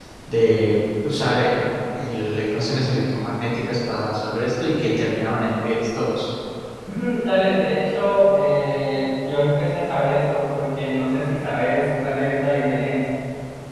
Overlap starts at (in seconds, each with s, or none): none